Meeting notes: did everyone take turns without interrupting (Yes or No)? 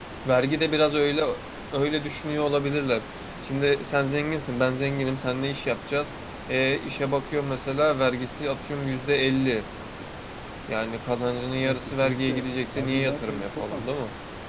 No